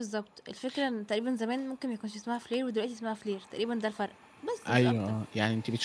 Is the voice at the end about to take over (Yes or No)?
Yes